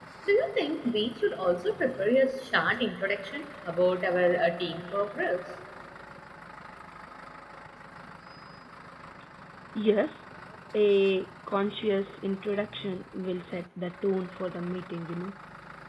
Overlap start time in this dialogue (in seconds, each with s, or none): none